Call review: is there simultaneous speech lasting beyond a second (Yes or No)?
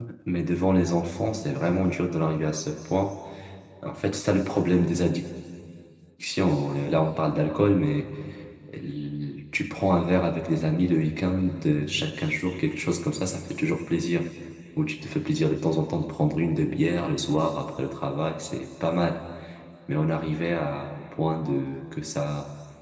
No